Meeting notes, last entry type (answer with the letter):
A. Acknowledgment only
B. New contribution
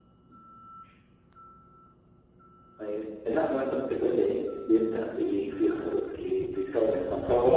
B